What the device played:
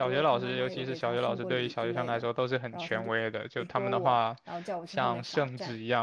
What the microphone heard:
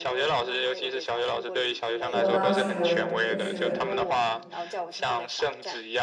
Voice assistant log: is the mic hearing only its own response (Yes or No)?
No